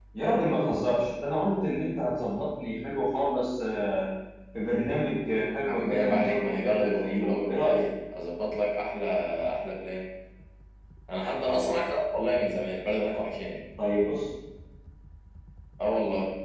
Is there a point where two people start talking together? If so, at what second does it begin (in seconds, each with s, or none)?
5.7 s